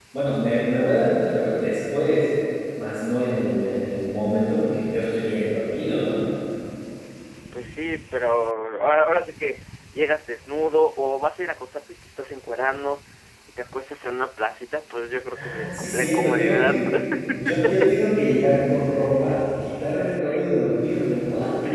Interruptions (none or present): present